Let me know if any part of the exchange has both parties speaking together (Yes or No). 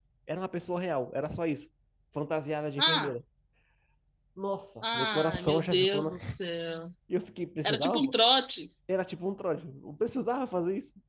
Yes